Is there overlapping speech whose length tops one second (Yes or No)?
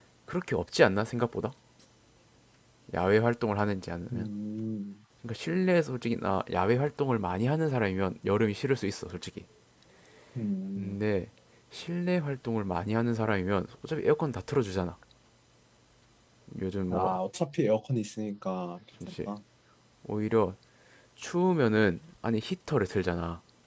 No